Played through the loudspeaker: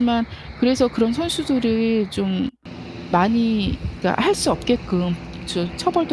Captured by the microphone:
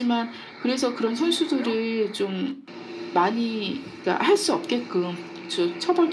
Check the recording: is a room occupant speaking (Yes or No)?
Yes